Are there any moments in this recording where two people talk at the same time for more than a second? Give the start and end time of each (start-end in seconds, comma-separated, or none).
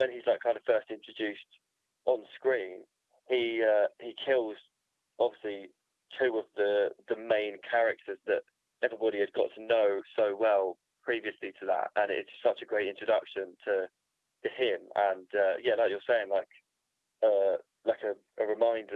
none